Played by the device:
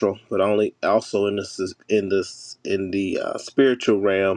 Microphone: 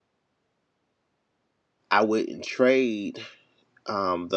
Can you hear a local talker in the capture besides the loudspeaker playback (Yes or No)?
Yes